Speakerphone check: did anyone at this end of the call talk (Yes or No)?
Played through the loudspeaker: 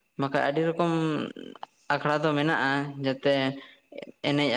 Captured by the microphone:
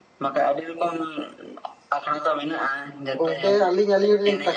Yes